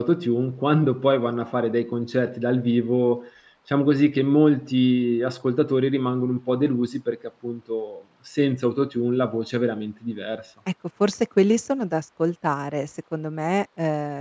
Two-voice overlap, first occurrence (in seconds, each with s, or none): none